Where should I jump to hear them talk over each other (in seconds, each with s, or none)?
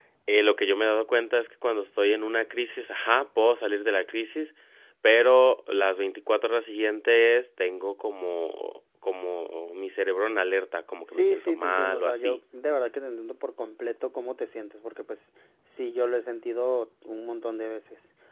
11.1 s